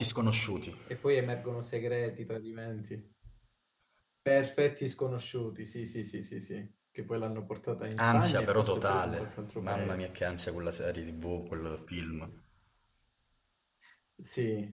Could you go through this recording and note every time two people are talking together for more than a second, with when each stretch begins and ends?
8.0-10.1

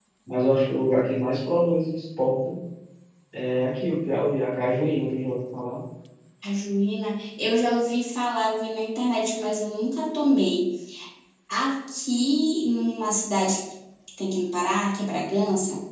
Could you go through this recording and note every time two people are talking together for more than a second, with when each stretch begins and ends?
none

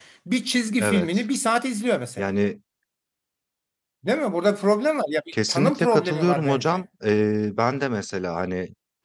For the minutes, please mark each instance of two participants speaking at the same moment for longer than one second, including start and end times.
5.5-6.8

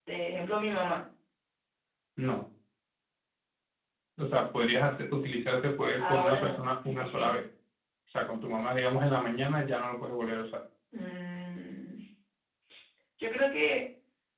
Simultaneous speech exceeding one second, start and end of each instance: 6.0-7.3

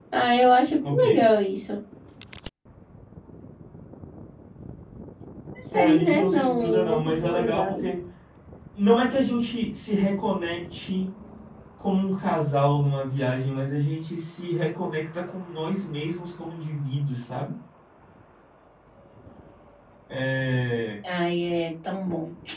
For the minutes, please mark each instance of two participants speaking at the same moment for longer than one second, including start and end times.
5.7-7.8

